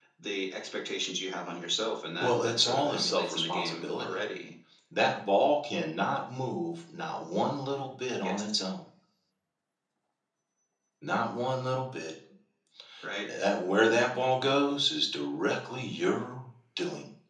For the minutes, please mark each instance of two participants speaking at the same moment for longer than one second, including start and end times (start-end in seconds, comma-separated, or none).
2.2-4.2